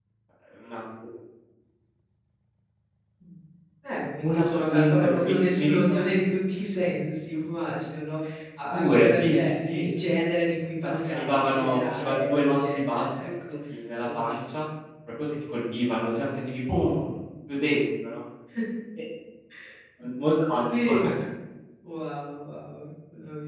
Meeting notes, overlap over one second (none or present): present